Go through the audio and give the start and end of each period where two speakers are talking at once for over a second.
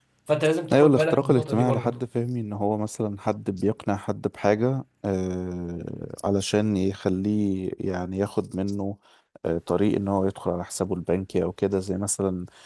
0.7-2.0

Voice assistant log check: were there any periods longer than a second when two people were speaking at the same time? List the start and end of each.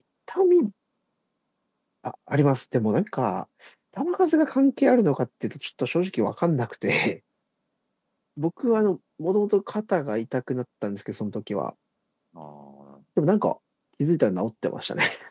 none

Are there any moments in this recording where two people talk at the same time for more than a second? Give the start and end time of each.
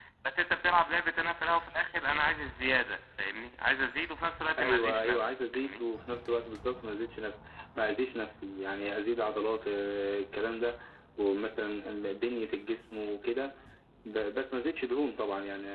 4.6-5.8

